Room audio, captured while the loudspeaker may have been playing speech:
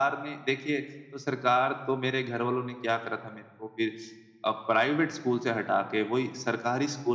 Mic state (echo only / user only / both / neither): echo only